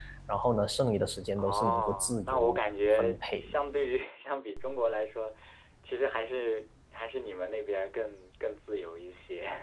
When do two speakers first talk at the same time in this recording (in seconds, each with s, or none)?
1.4 s